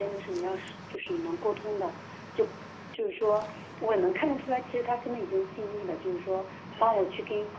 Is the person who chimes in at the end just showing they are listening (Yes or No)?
Yes